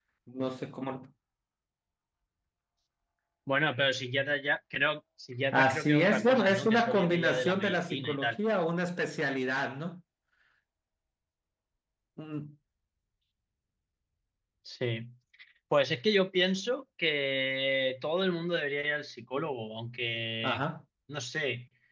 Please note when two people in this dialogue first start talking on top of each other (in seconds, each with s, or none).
5.5 s